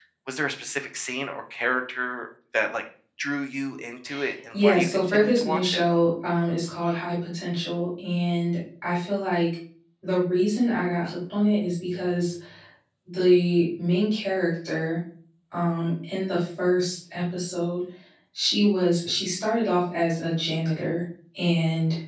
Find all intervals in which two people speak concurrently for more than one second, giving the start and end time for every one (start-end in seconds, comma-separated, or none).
4.5-5.8